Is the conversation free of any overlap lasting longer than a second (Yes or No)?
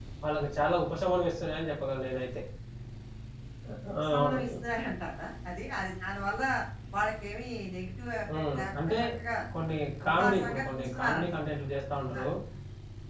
No